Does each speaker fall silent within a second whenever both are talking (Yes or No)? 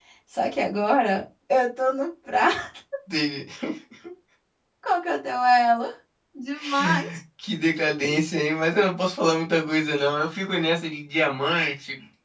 Yes